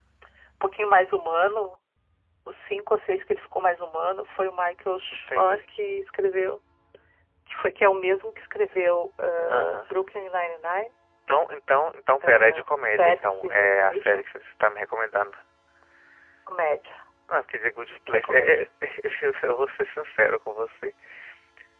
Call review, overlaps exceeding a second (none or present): present